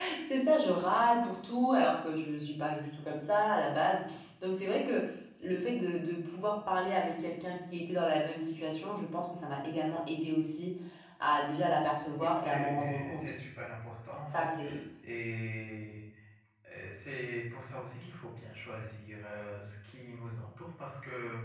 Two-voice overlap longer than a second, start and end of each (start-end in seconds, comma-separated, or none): 12.1-13.3